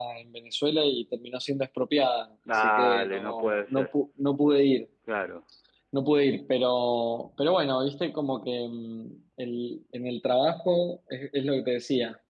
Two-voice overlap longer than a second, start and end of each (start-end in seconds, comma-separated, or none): 2.5-3.9